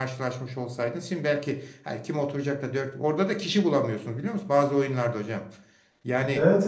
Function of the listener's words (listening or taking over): taking over